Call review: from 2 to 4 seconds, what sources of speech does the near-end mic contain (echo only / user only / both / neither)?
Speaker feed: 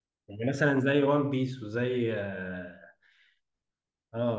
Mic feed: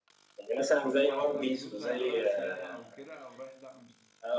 both